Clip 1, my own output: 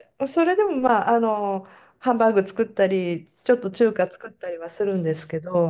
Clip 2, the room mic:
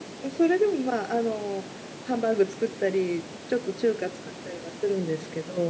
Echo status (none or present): present